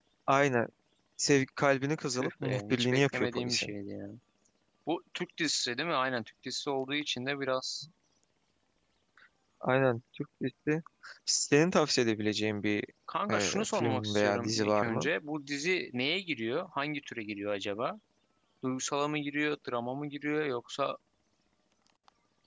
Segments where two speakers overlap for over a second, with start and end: 2.1-3.7, 13.3-15.1

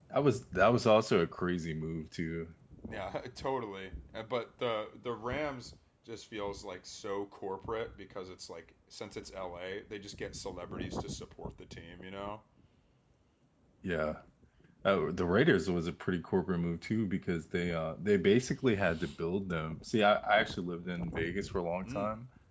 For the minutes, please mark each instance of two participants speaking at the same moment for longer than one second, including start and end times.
none

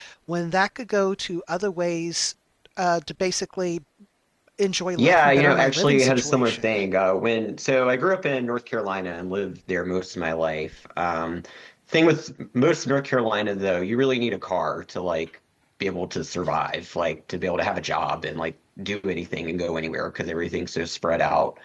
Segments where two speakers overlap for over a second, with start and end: 5.0-6.8

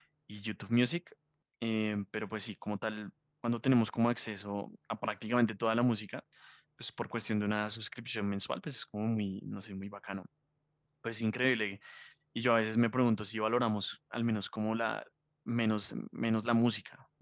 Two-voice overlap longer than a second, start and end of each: none

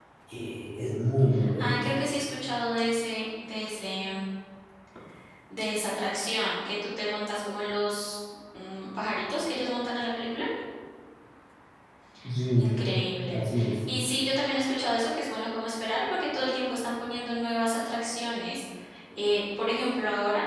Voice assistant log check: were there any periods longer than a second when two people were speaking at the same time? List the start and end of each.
none

